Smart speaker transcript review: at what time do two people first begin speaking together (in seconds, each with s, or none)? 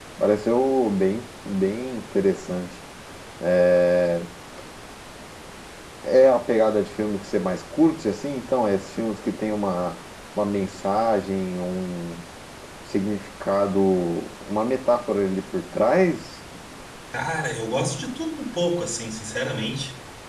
none